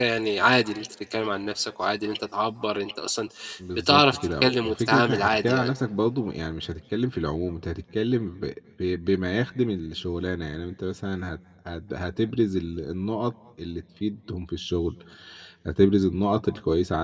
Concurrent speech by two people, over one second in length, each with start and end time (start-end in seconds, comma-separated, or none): 3.8-5.7